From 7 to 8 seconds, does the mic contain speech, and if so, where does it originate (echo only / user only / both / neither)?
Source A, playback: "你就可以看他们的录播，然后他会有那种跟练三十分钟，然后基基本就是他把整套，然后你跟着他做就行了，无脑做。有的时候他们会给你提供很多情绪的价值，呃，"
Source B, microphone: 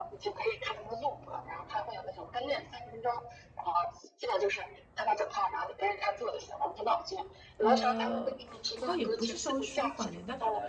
both